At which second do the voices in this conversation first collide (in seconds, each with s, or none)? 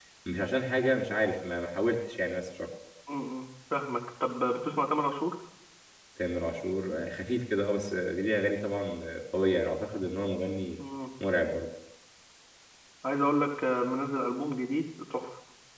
none